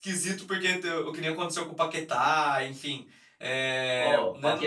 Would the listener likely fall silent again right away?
No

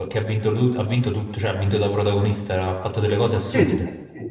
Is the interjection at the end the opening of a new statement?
Yes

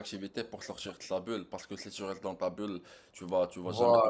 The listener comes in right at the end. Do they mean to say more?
No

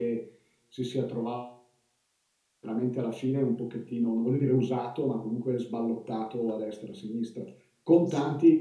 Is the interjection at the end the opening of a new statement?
No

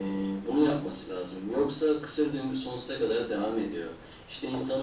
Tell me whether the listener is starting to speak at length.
No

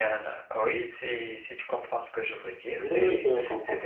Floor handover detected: Yes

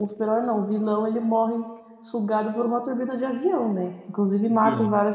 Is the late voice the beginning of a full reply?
No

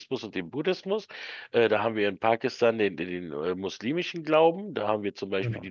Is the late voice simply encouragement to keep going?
Yes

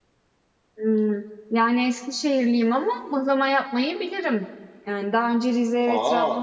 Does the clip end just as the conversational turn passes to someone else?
No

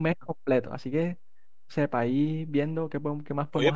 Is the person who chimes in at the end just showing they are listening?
No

